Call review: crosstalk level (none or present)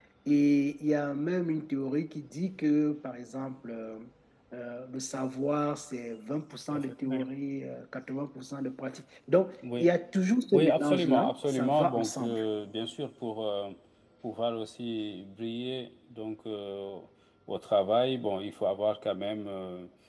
present